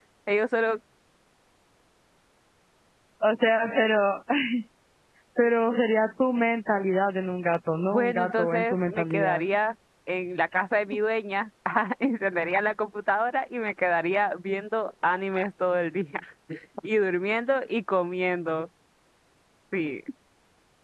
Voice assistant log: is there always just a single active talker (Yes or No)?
No